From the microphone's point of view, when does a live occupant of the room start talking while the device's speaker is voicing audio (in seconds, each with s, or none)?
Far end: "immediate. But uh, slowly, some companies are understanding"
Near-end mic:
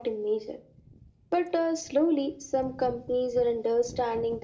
none